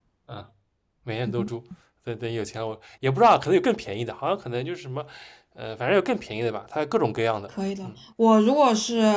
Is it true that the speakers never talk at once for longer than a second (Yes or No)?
Yes